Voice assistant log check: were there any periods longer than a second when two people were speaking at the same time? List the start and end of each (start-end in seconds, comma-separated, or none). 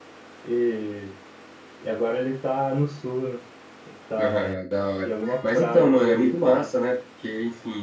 5.0-6.7